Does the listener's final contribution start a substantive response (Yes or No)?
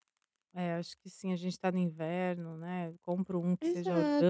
Yes